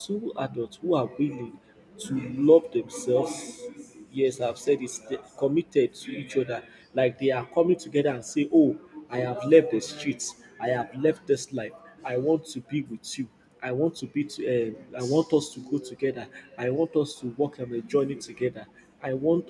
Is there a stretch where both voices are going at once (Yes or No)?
No